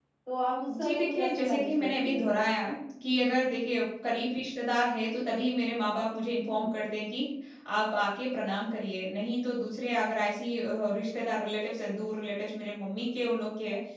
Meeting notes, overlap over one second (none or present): present